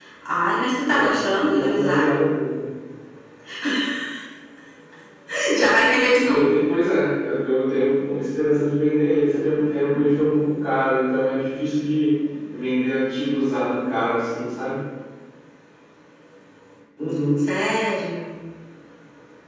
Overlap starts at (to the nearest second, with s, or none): 1 s